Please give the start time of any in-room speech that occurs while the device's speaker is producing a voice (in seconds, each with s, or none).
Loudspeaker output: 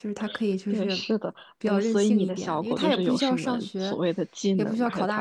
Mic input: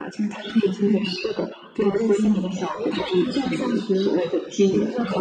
none